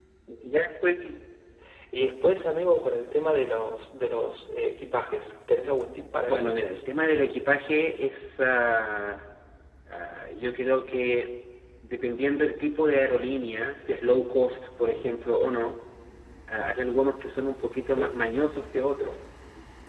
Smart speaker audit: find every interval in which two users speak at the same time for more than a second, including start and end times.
none

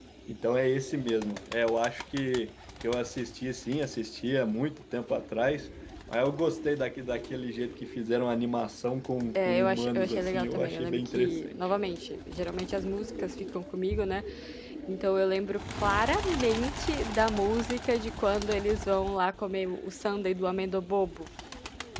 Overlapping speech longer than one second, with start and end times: 9.3-11.6

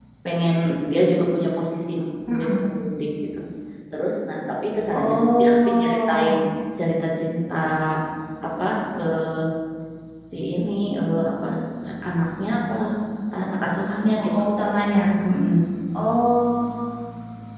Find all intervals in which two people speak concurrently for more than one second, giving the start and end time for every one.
4.9-6.3

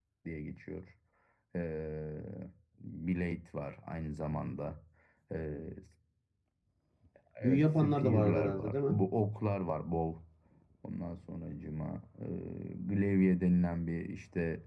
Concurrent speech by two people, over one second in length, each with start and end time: 7.4-8.9

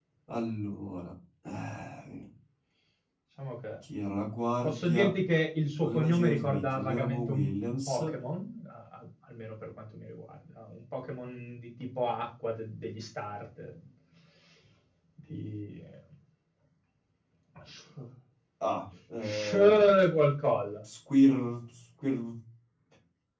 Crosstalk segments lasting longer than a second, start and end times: 5.8-8.0

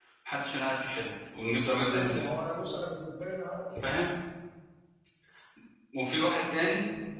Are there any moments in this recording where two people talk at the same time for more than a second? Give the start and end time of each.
none

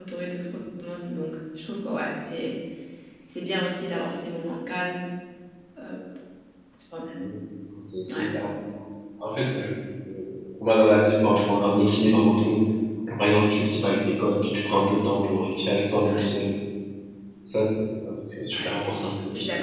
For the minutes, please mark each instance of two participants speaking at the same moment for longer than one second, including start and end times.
none

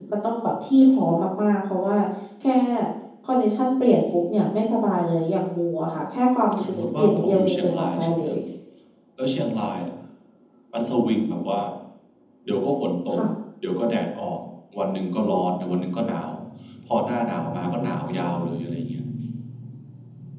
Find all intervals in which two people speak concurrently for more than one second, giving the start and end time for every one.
6.6-8.3

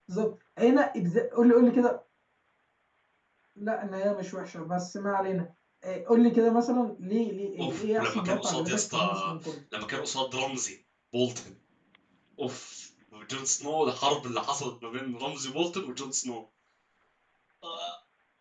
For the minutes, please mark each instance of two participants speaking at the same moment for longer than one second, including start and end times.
7.6-9.3

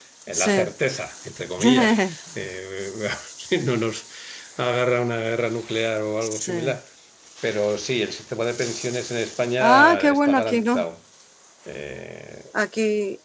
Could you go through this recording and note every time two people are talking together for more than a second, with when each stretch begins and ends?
9.6-10.8

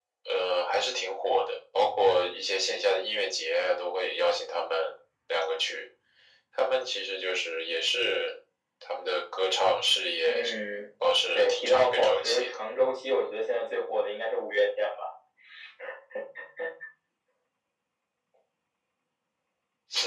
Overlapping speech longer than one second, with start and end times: 11.3-12.6

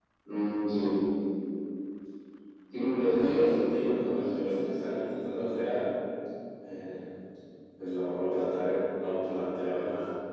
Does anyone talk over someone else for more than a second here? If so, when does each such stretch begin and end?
3.2-4.6

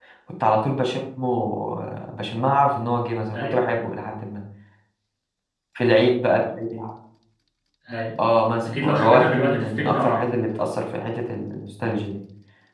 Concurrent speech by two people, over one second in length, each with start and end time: 8.6-10.4

